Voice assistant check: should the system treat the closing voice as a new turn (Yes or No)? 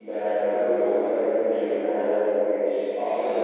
Yes